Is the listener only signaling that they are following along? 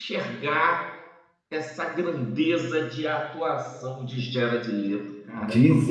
No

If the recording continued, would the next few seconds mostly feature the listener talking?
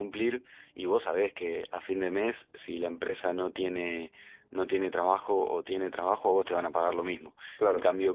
No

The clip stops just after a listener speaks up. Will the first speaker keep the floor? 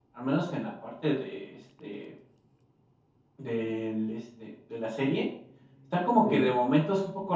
Yes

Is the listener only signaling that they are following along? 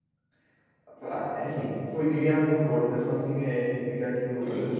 Yes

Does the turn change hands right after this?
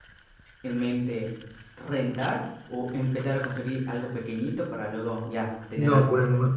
Yes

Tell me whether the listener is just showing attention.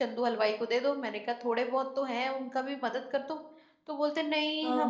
Yes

